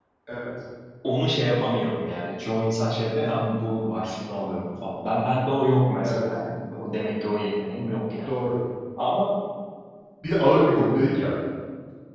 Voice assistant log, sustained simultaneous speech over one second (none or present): none